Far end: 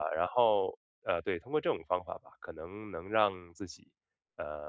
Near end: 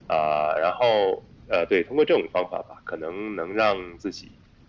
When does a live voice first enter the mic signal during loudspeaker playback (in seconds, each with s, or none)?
none